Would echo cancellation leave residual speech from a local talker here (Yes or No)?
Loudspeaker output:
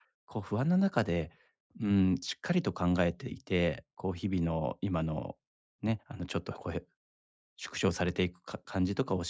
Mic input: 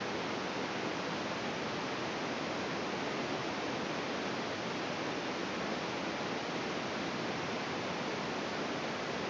No